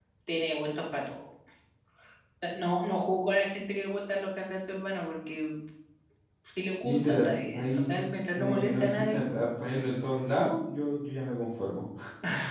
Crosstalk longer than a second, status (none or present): present